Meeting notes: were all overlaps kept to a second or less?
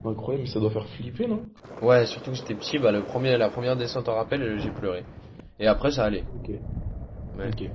Yes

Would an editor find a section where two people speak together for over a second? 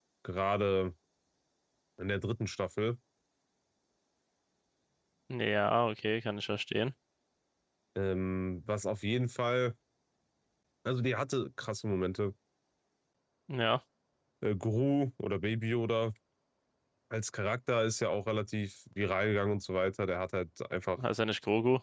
No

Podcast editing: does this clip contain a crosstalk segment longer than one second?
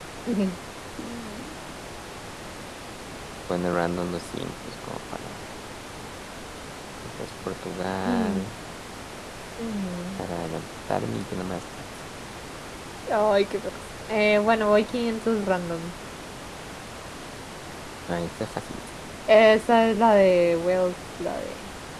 No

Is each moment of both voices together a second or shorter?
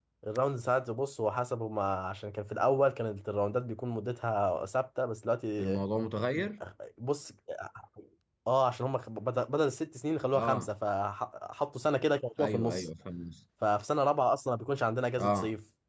Yes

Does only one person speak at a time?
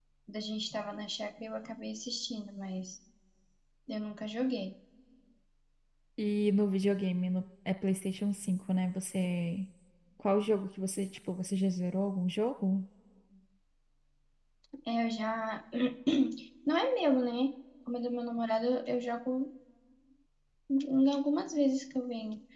Yes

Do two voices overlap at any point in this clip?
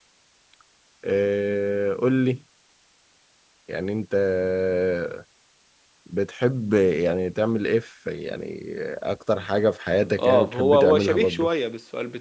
Yes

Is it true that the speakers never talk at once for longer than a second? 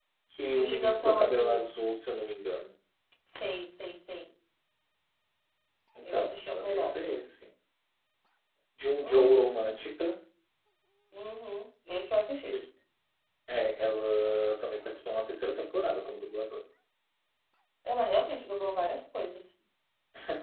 No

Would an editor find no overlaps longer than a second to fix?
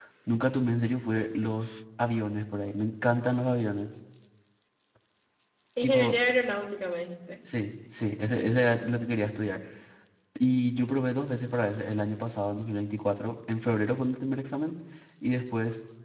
Yes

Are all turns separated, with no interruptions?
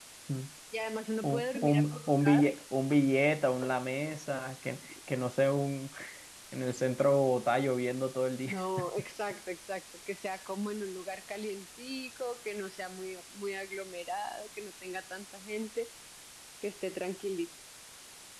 No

